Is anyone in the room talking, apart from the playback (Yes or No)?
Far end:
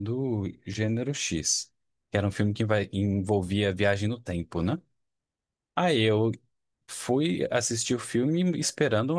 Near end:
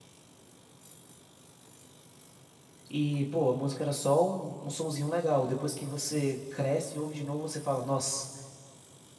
Yes